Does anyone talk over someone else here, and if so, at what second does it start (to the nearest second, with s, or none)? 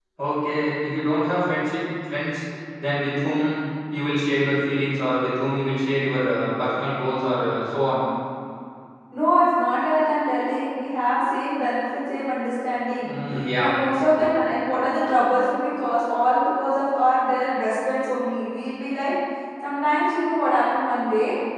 none